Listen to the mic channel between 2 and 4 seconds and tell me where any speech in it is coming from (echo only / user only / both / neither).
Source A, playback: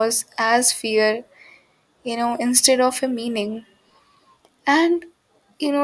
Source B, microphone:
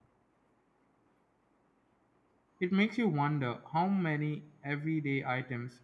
user only